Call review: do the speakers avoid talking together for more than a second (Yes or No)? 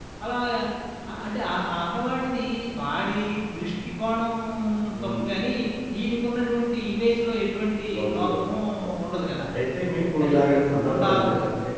No